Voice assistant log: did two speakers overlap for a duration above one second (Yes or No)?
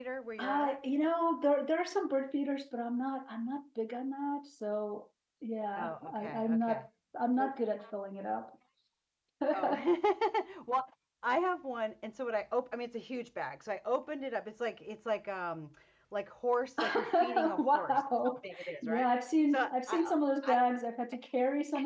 Yes